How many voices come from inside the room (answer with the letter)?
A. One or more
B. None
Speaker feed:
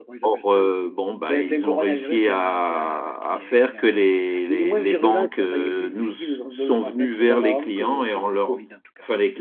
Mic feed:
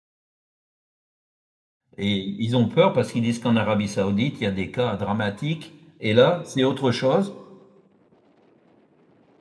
A